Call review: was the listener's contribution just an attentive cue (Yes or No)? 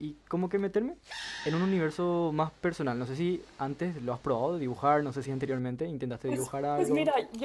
No